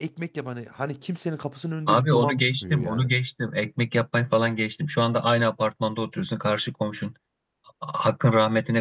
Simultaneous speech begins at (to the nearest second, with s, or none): 2 s